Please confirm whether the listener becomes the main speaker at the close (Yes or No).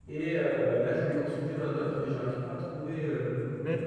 Yes